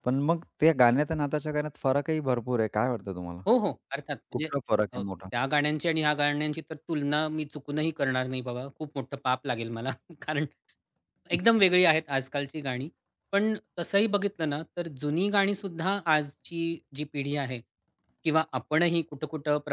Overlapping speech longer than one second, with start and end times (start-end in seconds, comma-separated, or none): none